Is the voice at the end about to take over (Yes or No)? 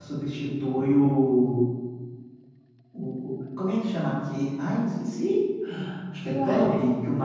No